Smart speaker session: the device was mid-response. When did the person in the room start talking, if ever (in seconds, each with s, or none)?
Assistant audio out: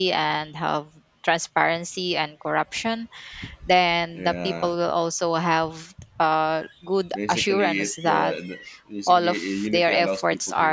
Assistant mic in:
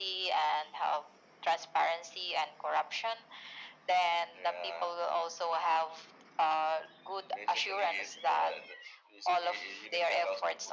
none